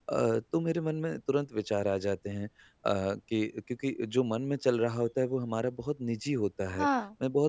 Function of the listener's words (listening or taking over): listening